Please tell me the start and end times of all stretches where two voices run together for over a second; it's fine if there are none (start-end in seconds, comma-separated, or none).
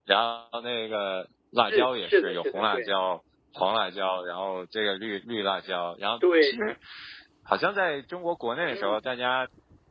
1.7-2.9